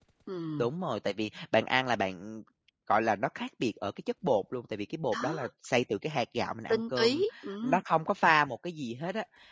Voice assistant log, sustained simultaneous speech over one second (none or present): none